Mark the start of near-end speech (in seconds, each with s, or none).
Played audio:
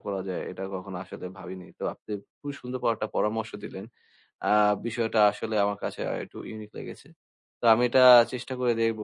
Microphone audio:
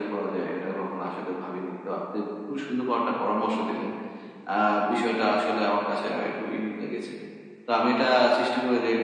none